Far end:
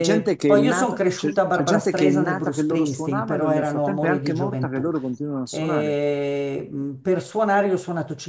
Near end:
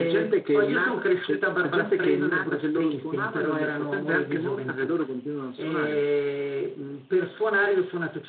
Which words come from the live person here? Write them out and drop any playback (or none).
none